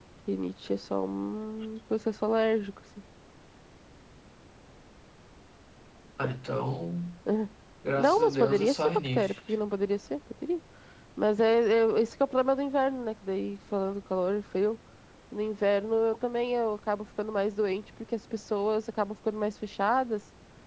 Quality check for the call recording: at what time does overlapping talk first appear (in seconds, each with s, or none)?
8.0 s